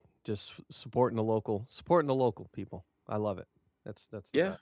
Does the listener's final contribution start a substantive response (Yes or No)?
Yes